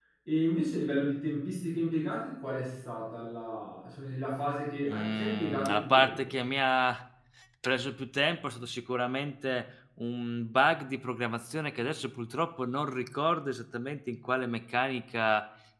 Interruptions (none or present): present